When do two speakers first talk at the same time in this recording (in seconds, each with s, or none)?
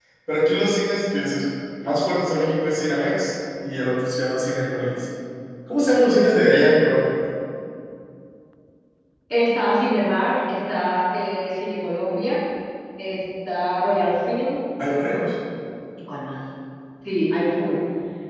none